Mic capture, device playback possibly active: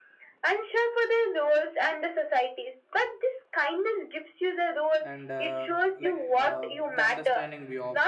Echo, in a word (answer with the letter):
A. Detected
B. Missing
A